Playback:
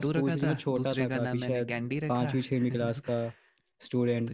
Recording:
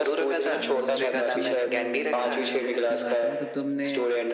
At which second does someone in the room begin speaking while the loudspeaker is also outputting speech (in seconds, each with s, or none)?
0.4 s